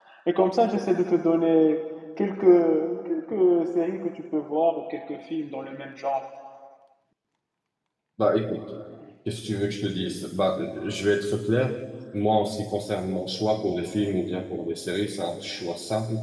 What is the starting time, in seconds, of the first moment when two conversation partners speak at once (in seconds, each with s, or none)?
none